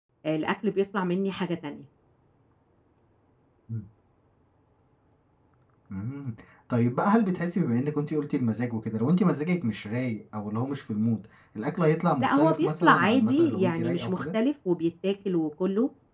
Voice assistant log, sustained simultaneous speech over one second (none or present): present